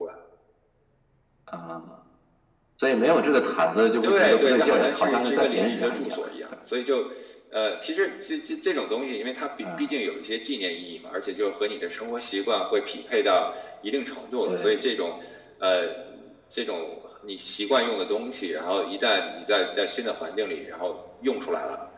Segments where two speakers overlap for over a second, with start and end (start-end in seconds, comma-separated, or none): 4.0-6.2